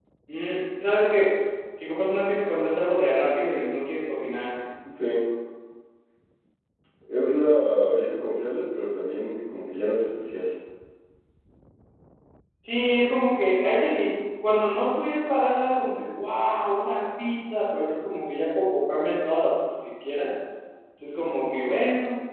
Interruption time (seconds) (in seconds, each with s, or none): none